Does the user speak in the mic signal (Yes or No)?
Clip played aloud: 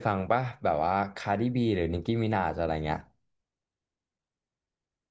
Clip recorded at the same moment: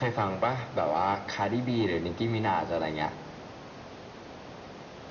No